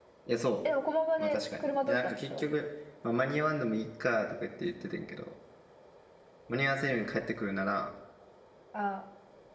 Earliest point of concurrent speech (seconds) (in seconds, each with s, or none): 1.2 s